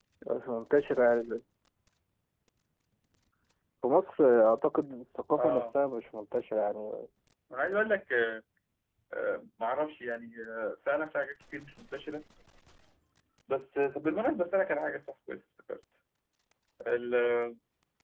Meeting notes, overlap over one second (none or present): none